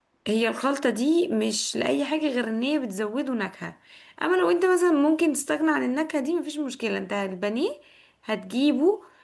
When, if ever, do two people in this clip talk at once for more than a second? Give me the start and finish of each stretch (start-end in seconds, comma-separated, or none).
none